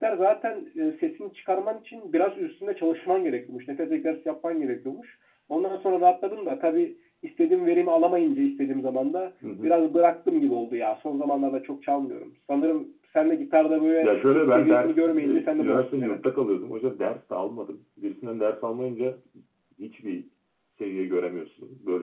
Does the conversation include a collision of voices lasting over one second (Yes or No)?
Yes